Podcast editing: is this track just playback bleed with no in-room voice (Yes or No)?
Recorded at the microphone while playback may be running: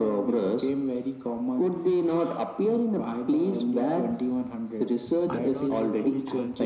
No